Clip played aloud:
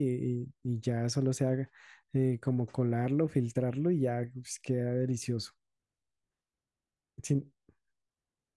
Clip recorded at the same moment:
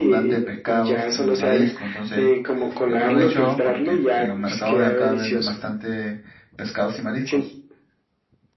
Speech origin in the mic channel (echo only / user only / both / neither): both